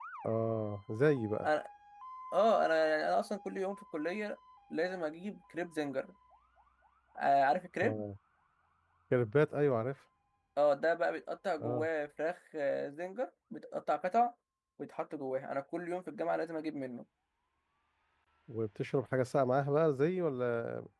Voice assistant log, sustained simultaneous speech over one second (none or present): none